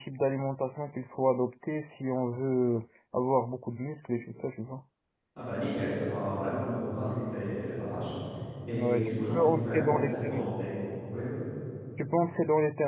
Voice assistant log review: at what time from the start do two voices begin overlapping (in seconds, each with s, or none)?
8.7 s